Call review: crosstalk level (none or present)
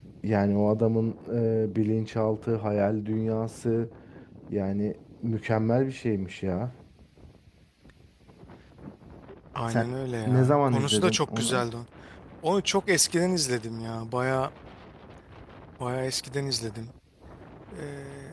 present